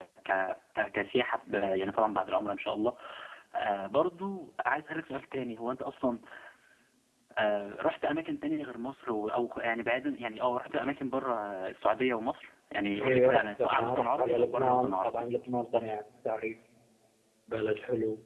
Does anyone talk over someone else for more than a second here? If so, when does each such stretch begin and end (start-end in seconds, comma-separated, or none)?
12.9-15.2